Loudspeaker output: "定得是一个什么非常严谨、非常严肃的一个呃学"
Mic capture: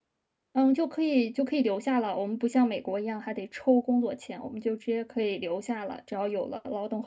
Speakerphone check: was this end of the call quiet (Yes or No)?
No